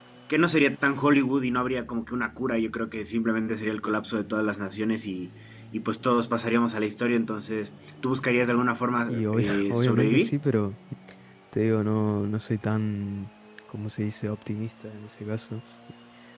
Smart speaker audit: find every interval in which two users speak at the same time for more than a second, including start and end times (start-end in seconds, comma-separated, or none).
9.1-10.3